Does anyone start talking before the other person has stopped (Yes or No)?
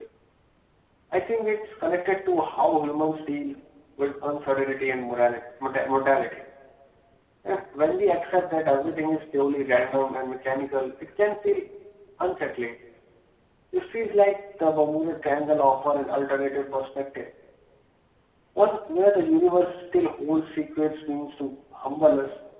No